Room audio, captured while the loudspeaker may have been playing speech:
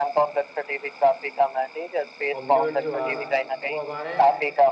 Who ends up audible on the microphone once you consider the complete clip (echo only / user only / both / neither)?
both